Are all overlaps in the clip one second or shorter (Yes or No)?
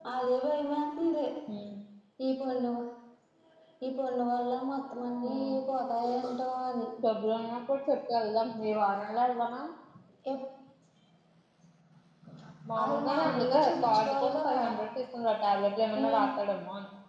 No